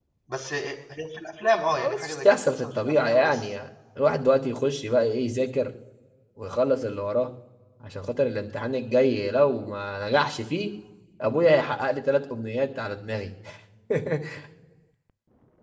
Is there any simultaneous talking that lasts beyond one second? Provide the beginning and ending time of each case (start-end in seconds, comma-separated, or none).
1.7-3.5